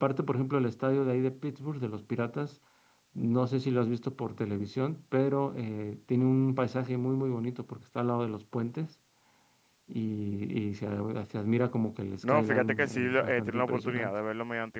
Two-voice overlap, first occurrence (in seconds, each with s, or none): 12.2 s